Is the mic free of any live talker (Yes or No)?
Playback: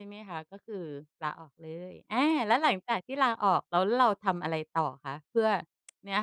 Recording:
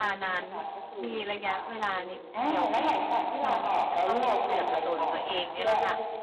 No